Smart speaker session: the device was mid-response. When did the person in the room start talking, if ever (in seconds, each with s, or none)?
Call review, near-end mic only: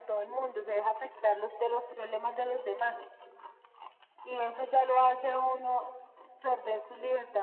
none